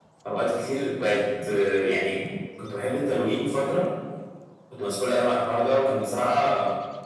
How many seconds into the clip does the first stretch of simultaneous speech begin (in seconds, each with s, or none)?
none